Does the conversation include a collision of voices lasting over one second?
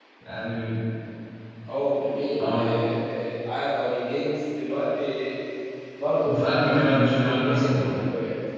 Yes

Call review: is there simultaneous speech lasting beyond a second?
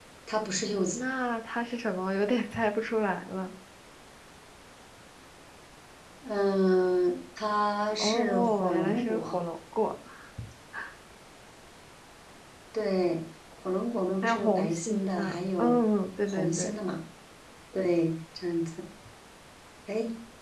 Yes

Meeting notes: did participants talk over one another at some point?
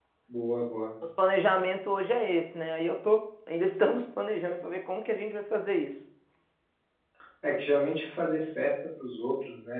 No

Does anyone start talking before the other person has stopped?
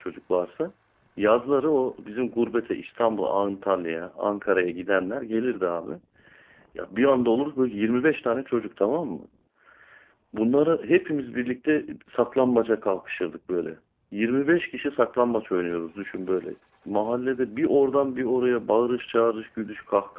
No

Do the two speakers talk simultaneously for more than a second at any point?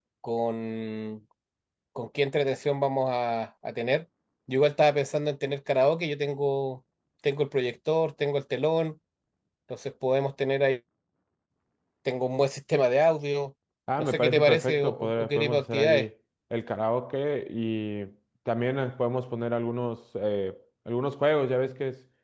Yes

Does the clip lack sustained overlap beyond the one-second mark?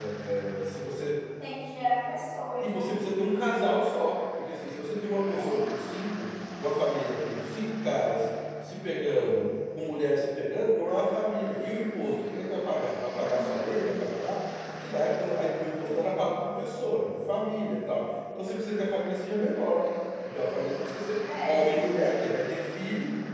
Yes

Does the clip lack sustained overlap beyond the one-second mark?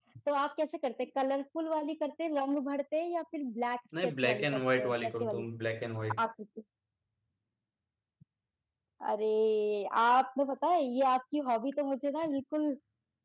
No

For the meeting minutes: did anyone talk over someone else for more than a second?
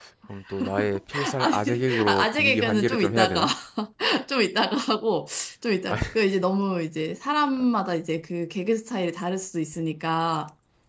Yes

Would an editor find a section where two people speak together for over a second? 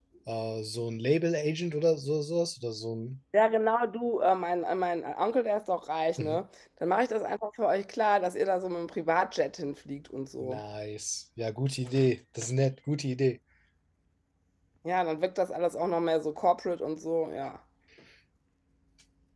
No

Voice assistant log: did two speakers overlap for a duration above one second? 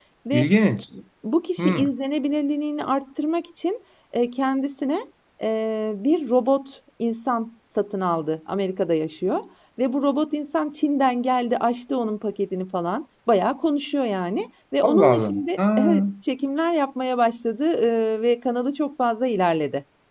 Yes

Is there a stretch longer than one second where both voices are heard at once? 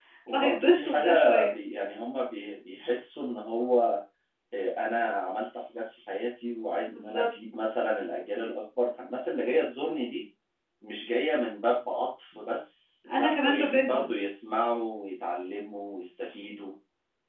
Yes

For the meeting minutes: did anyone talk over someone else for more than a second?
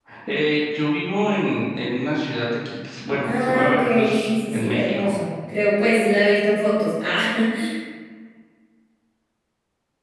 Yes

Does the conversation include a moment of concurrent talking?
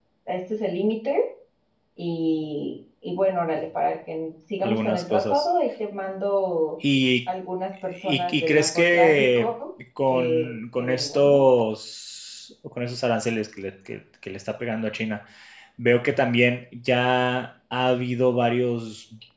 Yes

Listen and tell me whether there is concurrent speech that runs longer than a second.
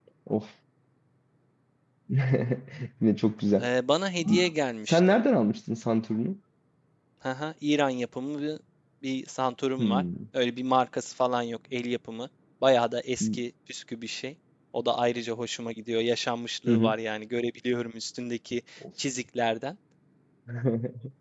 No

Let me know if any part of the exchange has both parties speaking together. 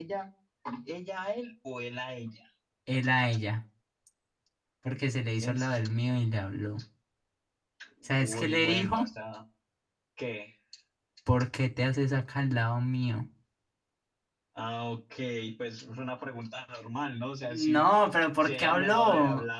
Yes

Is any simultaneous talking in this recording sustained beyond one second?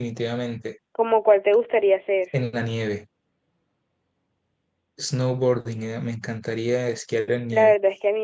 No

